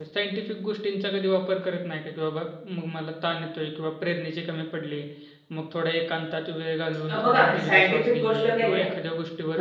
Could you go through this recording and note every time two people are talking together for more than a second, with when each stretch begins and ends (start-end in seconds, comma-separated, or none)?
7.1-8.8